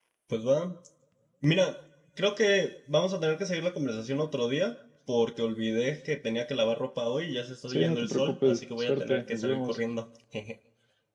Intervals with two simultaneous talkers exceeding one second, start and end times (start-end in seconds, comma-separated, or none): 7.7-9.8